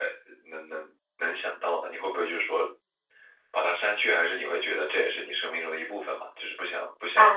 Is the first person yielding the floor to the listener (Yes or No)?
Yes